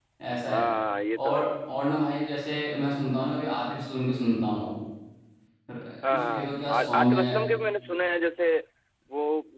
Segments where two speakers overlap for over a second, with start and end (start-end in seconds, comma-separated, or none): 6.1-7.4